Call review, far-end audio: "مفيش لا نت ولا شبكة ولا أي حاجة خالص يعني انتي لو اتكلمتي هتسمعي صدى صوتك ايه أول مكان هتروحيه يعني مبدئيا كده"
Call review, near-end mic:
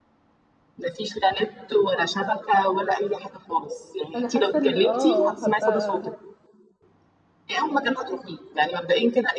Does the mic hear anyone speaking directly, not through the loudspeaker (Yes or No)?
Yes